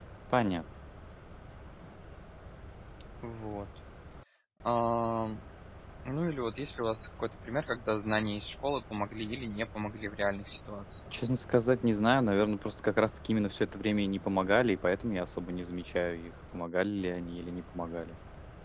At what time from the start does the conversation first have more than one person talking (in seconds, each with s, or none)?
none